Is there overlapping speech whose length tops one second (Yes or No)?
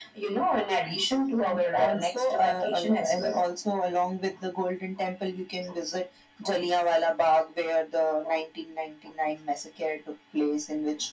Yes